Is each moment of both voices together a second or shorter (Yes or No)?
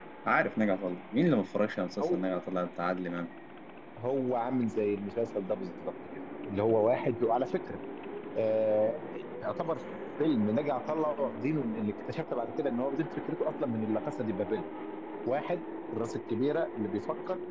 Yes